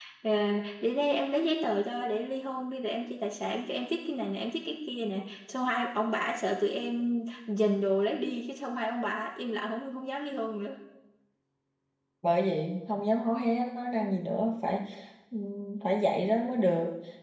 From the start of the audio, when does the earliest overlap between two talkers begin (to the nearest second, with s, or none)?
none